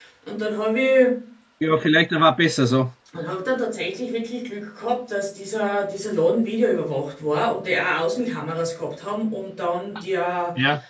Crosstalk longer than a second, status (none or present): none